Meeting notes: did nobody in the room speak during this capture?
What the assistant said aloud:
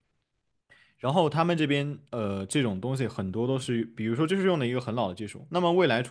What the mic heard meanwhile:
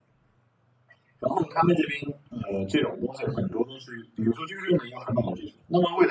Yes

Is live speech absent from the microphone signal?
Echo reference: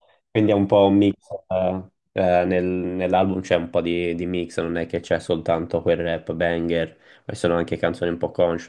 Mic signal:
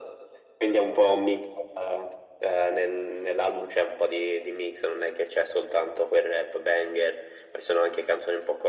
Yes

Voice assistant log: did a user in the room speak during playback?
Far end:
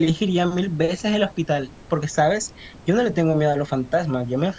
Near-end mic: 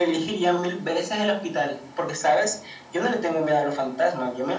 No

